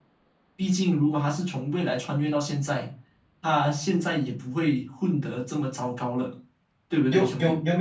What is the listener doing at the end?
taking over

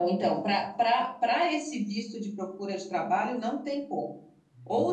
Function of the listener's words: listening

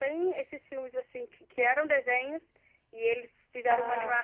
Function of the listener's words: listening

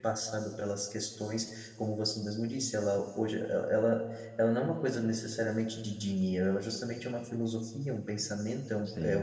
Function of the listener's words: listening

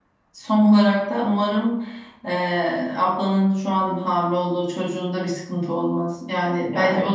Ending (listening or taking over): listening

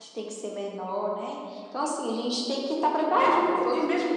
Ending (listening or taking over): taking over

